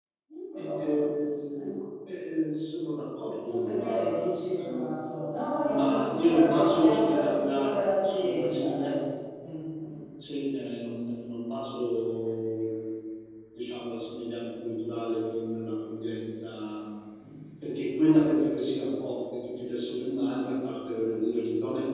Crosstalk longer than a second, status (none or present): present